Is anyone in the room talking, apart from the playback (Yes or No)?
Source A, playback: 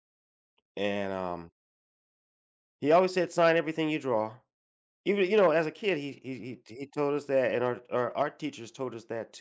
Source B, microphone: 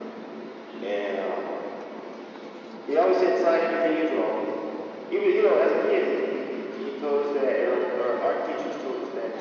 No